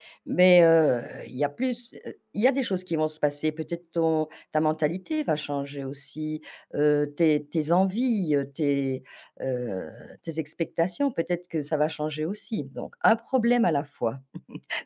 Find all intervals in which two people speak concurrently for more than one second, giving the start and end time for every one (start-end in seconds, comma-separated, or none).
none